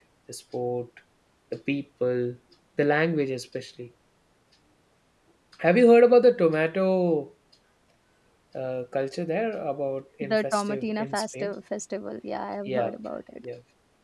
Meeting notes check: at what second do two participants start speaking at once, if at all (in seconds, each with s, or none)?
10.2 s